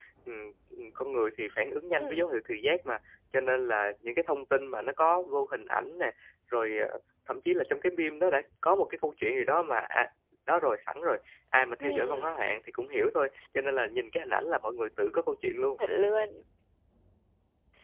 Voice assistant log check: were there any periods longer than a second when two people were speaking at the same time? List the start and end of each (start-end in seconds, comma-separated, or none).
none